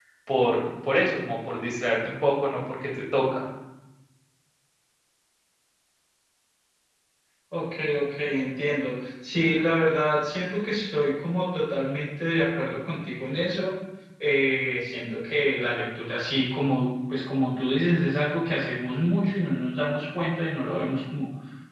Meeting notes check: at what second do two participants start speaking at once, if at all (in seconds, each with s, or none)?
none